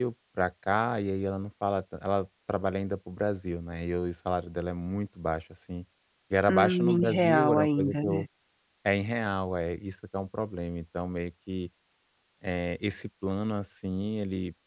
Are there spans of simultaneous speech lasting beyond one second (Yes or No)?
Yes